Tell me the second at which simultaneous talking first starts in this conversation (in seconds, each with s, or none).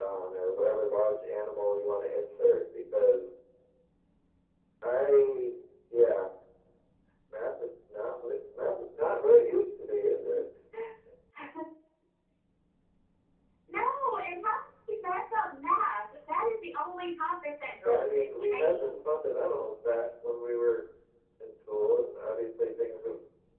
17.8 s